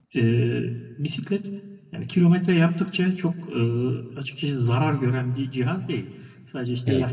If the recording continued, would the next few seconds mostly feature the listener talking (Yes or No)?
No